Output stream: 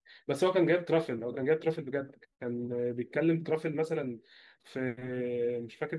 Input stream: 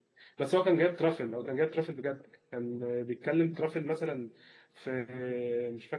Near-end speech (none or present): none